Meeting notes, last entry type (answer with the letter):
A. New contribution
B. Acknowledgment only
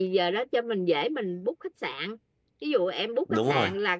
B